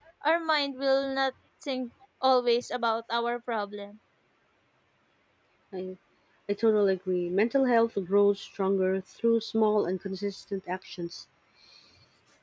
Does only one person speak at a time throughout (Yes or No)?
Yes